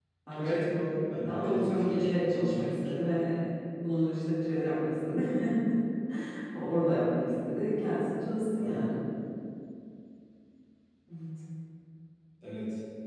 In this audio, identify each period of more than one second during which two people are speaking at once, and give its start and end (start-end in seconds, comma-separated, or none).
1.2-2.9